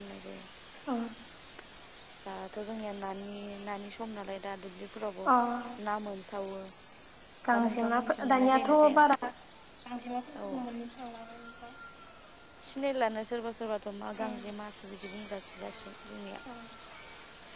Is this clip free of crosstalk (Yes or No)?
No